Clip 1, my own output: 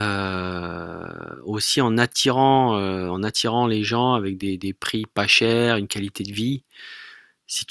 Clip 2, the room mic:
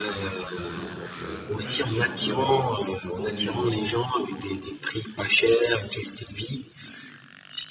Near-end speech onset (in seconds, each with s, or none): 0.7 s